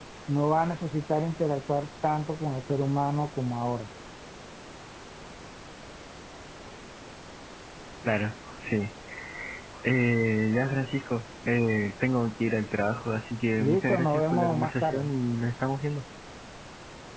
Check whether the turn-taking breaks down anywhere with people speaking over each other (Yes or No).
Yes